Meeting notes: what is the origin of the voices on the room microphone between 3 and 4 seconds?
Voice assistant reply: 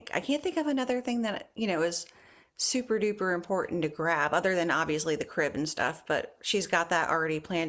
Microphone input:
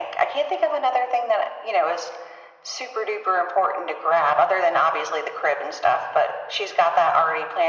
echo only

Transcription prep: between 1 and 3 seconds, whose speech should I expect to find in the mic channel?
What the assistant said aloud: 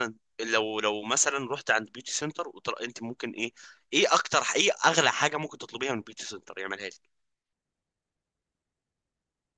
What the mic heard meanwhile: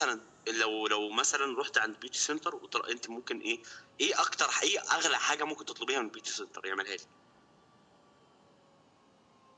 echo only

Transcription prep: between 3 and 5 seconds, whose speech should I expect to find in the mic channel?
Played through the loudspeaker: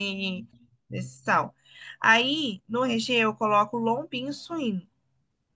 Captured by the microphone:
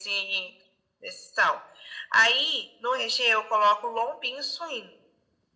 echo only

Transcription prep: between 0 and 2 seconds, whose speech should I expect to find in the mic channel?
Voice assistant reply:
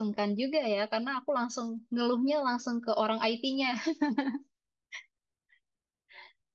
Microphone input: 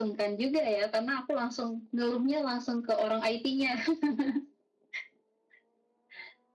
echo only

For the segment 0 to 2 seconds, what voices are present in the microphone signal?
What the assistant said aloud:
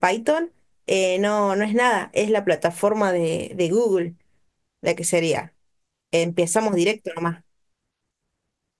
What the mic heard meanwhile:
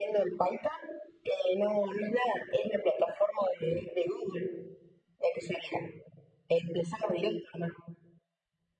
echo only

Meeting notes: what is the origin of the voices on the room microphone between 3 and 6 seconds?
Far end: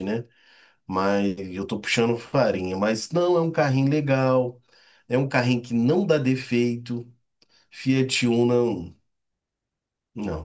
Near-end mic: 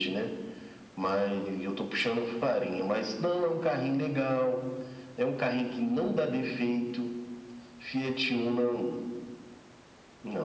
echo only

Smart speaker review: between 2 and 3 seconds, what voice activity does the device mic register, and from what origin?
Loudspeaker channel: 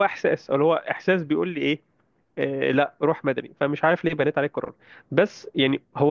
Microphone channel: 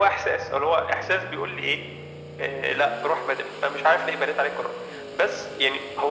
echo only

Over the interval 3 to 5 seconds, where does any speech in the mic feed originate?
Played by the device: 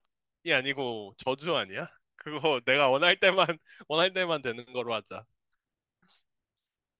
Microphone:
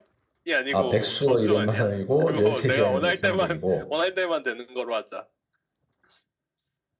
both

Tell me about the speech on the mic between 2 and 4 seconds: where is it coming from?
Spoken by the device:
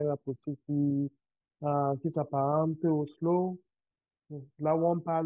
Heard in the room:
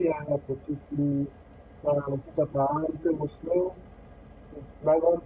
echo only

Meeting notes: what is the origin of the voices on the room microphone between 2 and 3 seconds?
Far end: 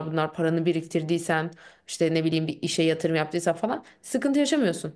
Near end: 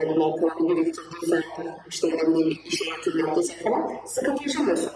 echo only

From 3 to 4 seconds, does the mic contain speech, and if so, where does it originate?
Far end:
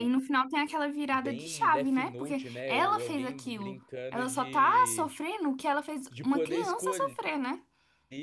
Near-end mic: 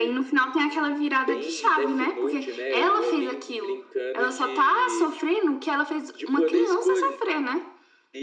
echo only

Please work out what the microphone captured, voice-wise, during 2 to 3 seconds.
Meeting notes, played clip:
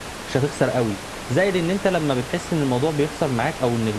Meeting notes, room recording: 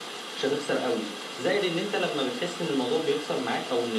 echo only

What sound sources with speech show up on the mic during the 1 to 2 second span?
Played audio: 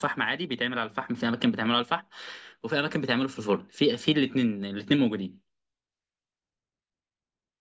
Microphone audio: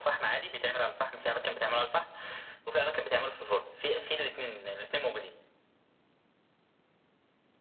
echo only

